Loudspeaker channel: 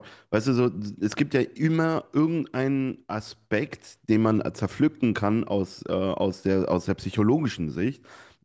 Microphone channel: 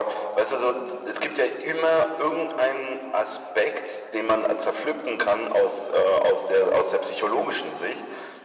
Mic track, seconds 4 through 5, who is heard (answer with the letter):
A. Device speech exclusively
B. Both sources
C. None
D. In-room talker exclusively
A